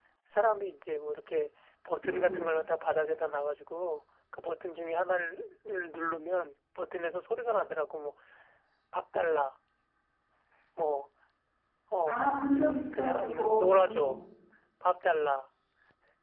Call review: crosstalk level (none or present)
present